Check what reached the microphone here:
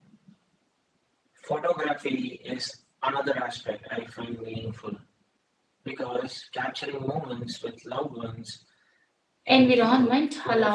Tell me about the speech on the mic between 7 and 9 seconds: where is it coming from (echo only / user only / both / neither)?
echo only